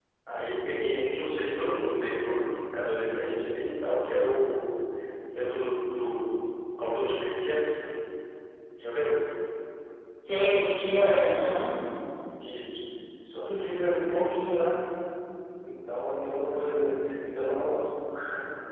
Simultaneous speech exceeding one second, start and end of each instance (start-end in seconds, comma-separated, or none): none